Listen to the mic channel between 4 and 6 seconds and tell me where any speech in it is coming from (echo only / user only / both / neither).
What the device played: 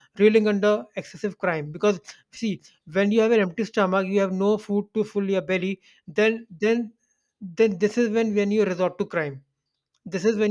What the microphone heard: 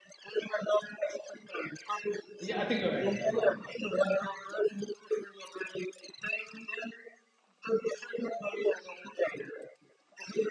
echo only